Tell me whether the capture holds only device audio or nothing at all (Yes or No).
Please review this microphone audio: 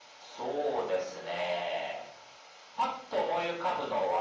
Yes